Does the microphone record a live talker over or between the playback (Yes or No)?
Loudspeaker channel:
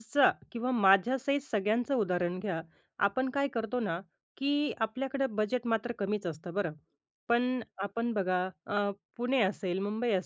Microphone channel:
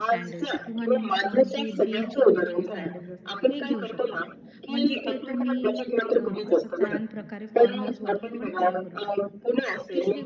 Yes